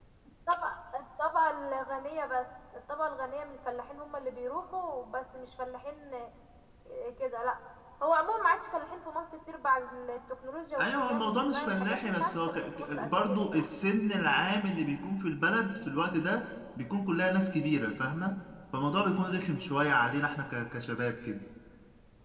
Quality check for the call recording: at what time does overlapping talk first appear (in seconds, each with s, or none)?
10.8 s